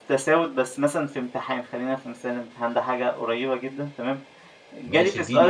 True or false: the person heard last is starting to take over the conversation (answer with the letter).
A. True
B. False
A